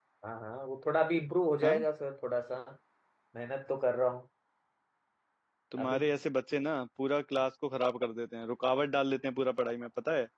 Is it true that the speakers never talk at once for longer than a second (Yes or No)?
Yes